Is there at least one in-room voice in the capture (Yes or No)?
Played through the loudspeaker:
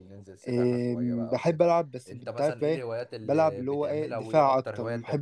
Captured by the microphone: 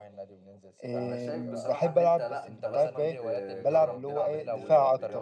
Yes